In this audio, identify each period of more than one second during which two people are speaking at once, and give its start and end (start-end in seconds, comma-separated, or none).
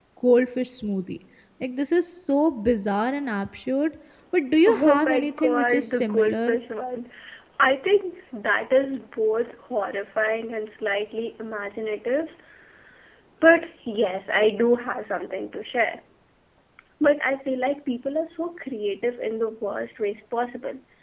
4.7-6.4